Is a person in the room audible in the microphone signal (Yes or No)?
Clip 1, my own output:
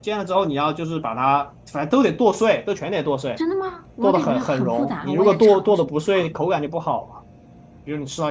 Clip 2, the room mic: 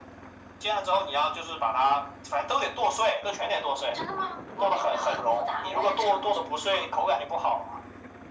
No